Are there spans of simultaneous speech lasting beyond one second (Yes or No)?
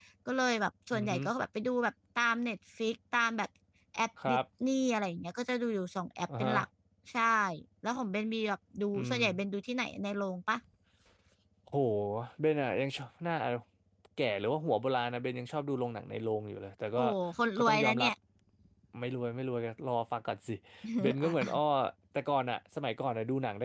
No